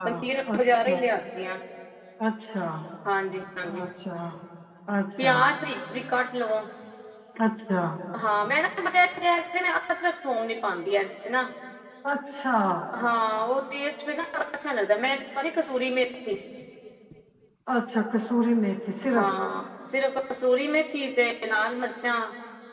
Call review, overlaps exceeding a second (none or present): none